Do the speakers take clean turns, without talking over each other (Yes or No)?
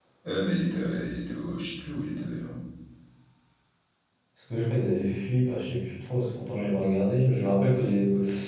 Yes